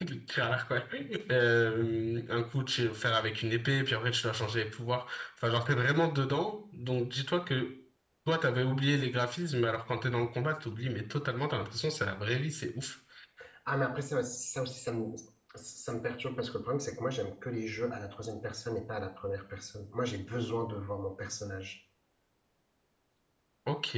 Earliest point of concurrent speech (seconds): none

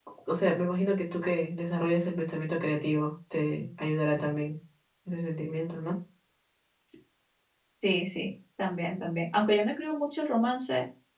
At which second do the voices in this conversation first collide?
none

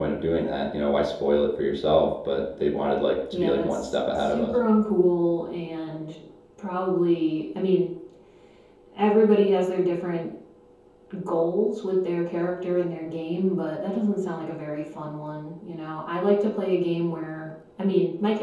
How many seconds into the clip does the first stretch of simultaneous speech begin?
3 s

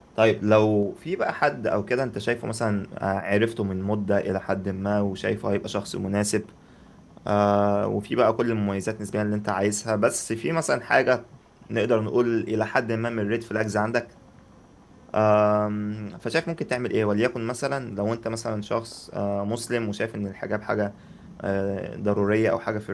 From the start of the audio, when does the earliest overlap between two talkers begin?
none

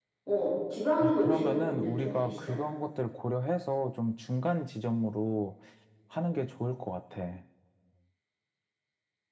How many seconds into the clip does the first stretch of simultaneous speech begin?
1 s

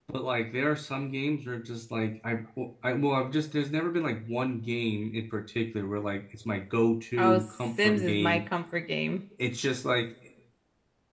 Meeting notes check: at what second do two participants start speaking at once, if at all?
7 s

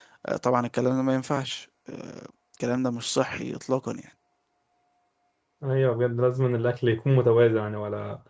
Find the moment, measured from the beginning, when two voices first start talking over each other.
none

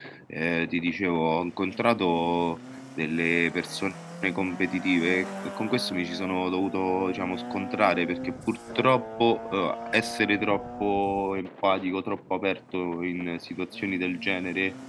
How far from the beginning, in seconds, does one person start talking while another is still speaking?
none

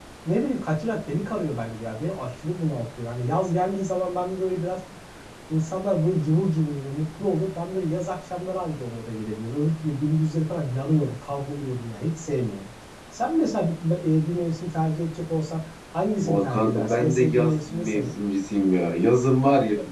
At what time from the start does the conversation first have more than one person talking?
16 s

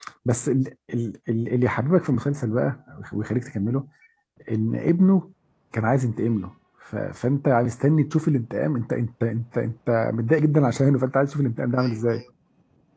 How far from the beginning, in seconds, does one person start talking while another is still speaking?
none

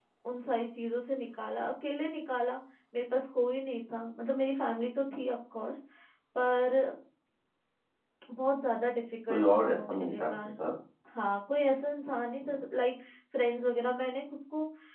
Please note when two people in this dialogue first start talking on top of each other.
9 s

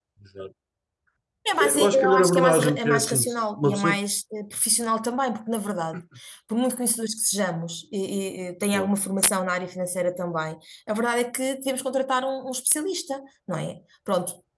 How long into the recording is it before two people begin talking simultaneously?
2 s

